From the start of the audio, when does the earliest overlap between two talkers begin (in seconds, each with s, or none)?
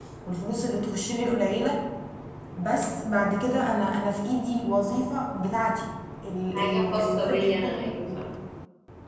6.5 s